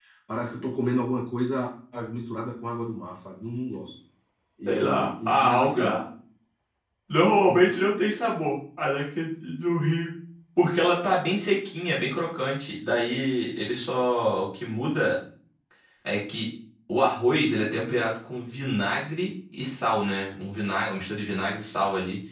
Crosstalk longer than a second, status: present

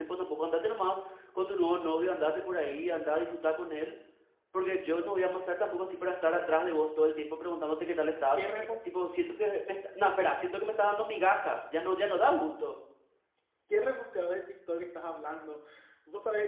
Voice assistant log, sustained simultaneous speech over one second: none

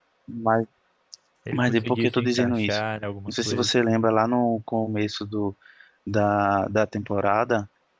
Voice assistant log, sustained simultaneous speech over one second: present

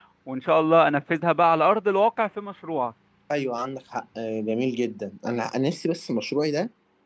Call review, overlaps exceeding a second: none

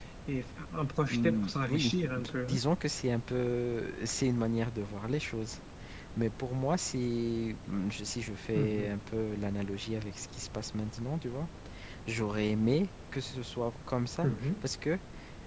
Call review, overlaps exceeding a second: present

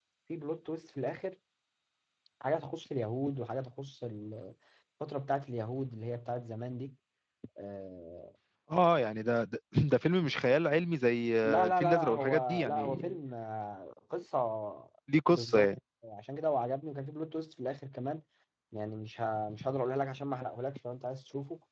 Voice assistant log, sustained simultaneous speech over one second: present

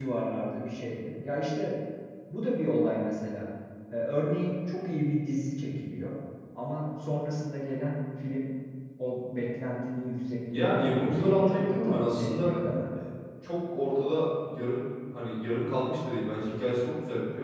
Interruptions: present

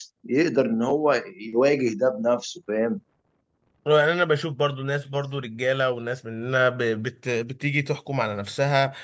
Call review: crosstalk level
none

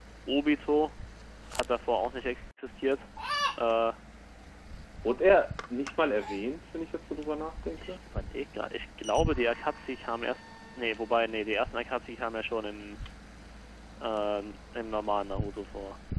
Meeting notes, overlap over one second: none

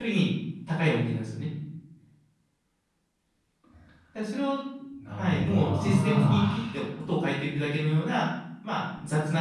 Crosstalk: present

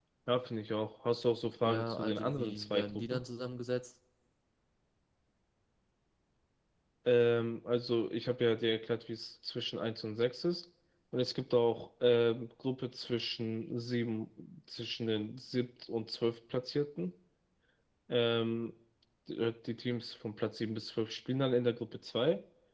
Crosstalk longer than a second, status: present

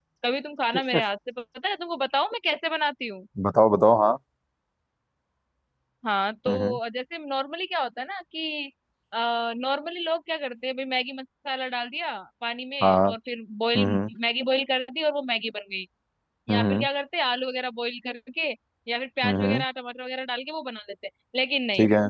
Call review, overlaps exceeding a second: none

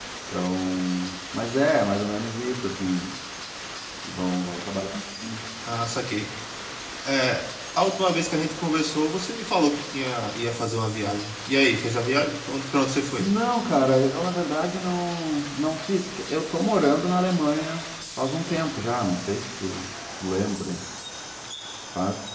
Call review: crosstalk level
none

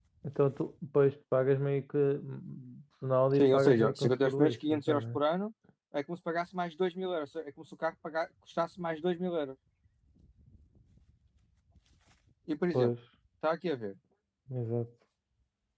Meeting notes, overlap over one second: present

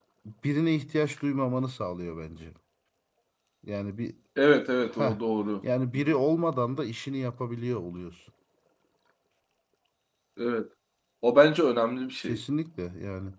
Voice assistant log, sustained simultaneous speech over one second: none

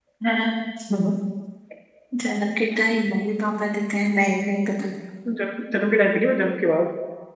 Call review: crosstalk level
none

